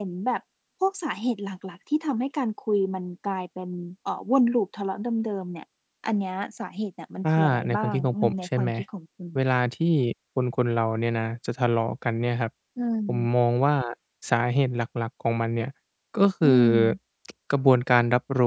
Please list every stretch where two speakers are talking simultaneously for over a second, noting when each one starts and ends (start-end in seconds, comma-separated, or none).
7.2-8.7